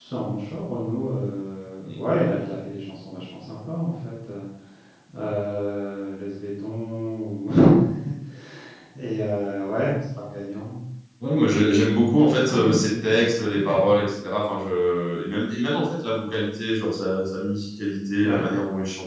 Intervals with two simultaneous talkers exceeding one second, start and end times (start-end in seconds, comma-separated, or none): 12.5-13.9